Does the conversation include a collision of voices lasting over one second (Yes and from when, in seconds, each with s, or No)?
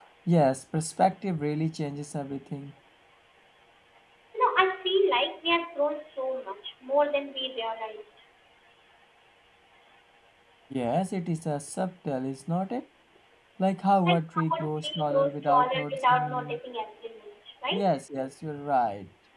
Yes, from 14.1 s